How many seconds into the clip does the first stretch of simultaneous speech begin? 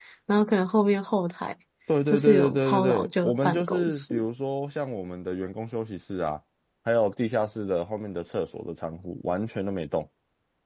2.1 s

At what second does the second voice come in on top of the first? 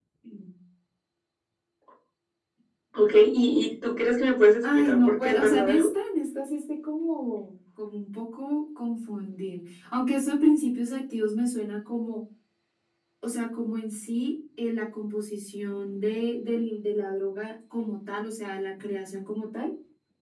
4.6 s

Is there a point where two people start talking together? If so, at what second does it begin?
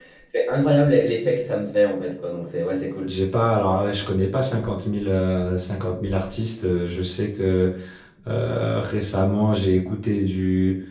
none

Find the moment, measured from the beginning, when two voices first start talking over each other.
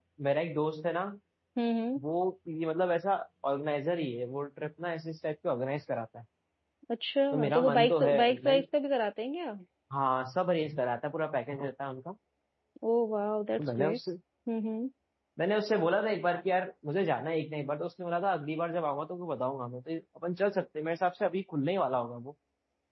7.3 s

